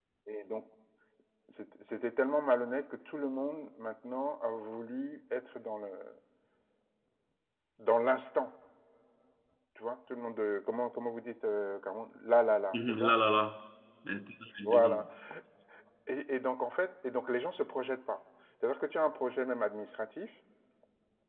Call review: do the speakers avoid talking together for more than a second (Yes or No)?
Yes